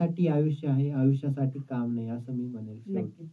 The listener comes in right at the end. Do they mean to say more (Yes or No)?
Yes